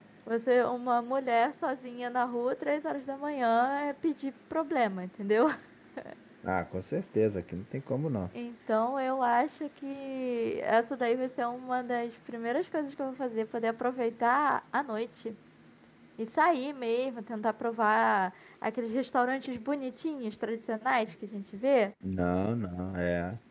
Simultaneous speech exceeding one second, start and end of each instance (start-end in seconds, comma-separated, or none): none